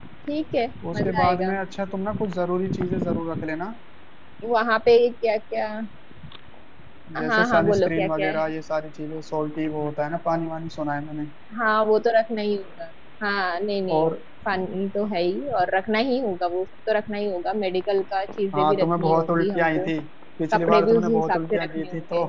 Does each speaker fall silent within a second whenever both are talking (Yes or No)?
No